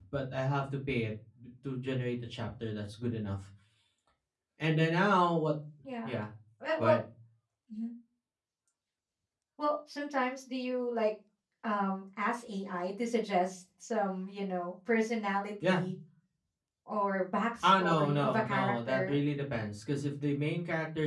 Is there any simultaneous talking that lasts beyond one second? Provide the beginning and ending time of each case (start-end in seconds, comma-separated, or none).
17.6-19.2